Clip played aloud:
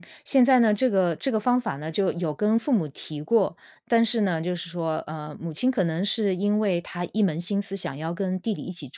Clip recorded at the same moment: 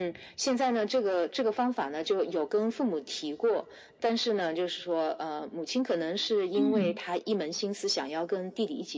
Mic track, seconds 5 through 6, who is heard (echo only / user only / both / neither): echo only